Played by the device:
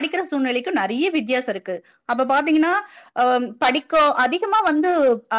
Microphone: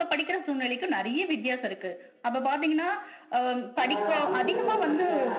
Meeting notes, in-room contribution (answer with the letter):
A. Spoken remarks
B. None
A